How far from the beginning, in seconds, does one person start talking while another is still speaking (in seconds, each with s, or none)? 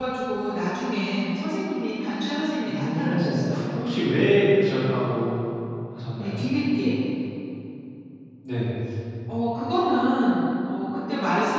2.6 s